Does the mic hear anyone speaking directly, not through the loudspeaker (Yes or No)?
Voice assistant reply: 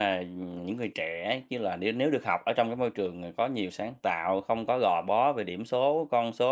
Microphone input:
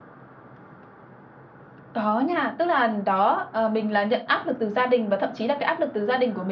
Yes